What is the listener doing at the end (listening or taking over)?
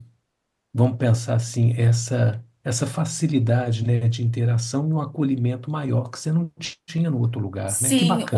taking over